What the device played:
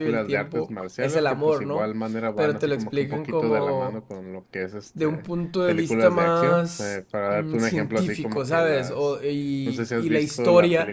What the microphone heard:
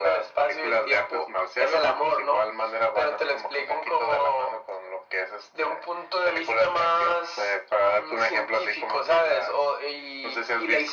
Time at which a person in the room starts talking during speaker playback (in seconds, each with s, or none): none